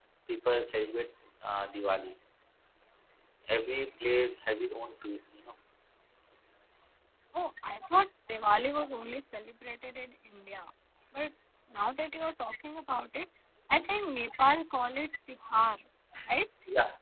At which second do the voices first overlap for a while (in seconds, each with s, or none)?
none